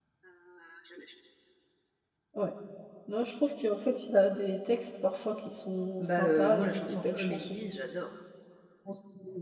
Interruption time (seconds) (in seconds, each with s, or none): 6.0 s